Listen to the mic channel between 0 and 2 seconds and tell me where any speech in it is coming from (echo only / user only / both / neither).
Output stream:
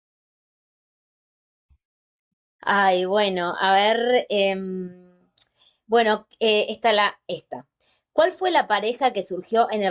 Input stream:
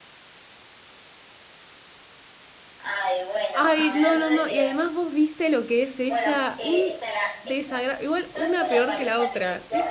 neither